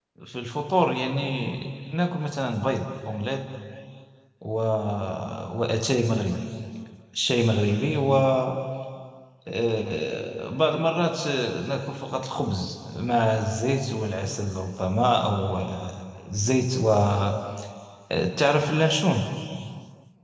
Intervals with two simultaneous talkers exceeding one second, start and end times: none

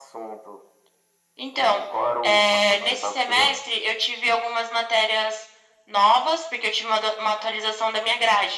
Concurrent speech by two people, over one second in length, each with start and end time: 2.2-3.6

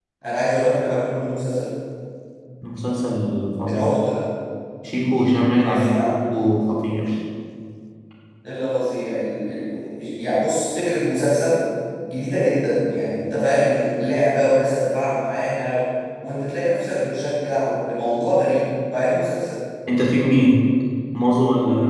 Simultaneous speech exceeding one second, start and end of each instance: none

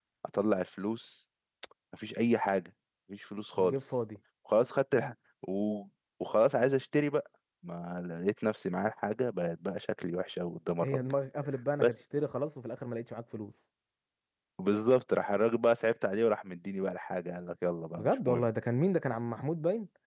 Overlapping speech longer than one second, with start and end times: none

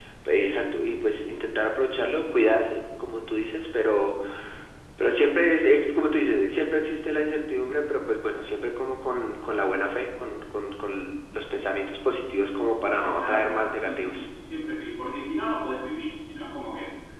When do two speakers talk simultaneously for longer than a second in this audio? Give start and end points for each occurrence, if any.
12.9-14.3

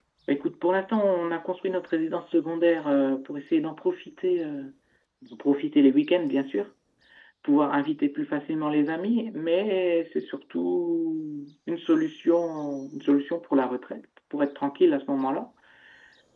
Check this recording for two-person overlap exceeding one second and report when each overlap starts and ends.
none

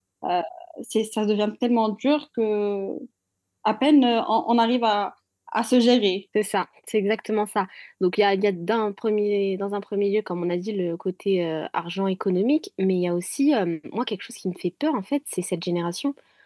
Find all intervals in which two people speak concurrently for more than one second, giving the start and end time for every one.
none

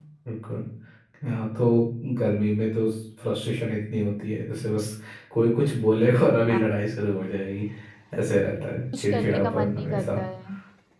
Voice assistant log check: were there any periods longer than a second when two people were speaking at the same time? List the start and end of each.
8.9-10.2

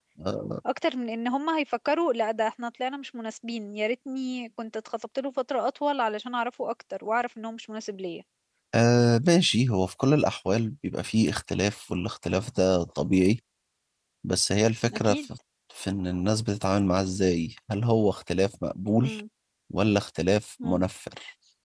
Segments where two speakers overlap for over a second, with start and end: none

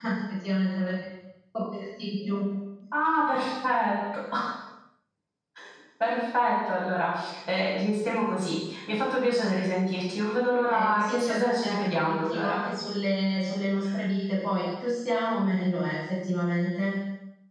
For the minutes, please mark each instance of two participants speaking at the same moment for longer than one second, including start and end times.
10.7-12.6

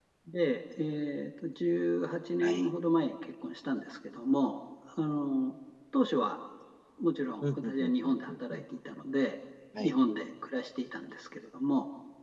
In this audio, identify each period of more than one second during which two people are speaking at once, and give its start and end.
7.4-8.6

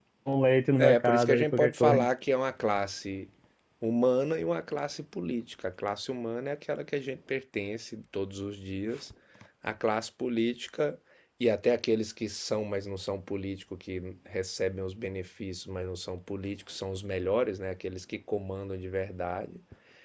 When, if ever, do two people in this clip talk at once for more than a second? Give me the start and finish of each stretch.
0.8-2.0

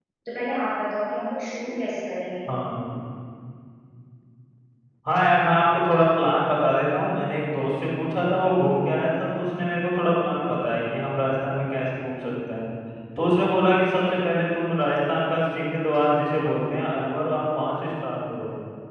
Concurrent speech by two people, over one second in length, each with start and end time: none

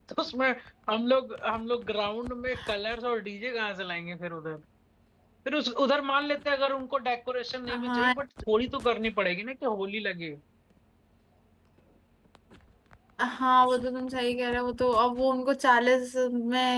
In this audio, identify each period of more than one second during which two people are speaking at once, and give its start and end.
none

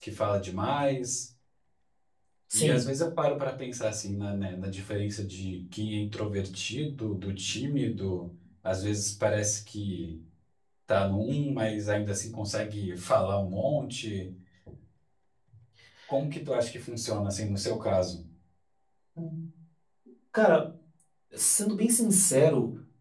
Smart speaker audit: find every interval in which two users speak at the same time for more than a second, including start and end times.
none

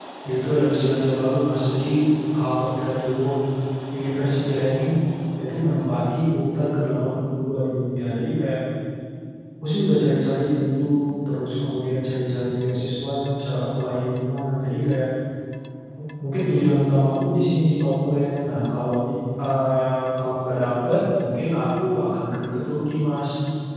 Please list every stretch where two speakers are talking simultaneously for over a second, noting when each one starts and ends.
none

